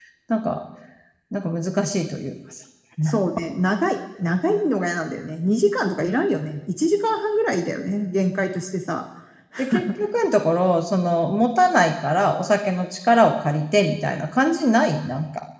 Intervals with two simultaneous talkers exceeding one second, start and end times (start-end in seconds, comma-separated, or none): none